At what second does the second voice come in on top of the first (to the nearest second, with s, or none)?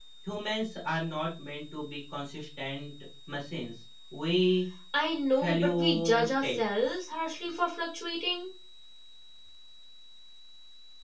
5 s